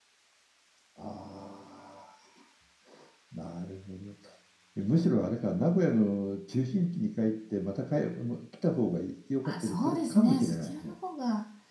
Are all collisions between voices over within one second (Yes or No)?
No